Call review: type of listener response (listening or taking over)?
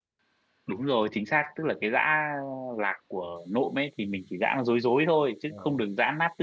listening